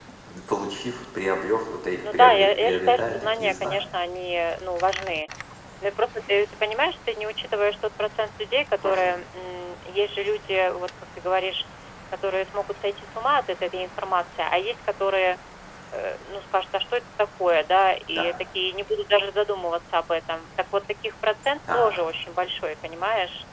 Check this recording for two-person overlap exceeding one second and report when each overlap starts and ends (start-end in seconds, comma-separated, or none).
2.1-3.9